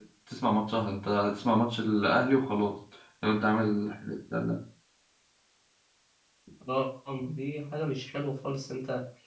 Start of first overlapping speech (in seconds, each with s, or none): none